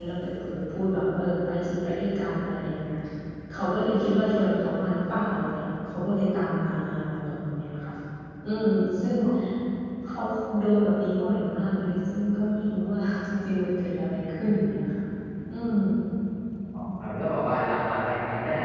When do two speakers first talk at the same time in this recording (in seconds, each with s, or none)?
none